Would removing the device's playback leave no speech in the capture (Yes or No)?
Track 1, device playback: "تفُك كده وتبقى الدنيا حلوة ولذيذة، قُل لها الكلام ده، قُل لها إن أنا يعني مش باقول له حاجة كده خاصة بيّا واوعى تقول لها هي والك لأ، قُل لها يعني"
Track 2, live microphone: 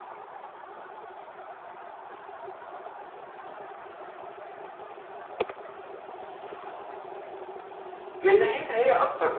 No